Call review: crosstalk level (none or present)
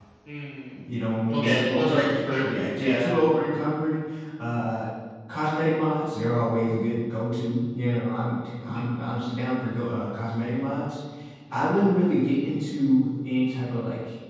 present